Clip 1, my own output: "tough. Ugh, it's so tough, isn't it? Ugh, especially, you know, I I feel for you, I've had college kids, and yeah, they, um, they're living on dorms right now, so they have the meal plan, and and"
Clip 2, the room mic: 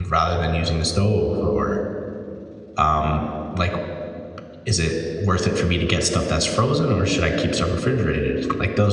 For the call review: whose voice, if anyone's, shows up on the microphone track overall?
user only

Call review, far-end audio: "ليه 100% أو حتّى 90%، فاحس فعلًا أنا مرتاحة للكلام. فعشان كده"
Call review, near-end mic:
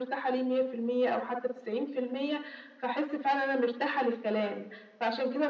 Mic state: echo only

